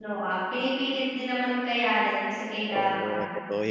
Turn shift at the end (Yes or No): Yes